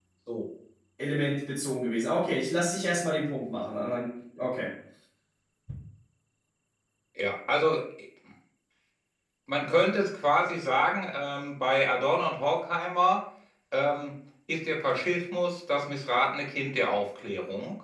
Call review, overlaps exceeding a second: none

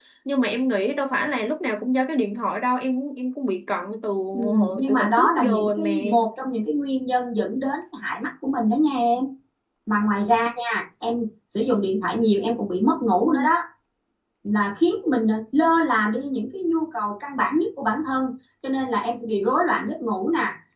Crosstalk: present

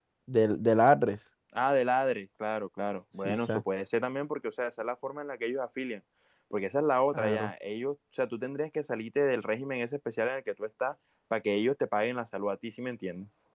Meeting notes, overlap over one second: none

